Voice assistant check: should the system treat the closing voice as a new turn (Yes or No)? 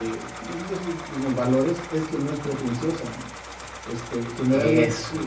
No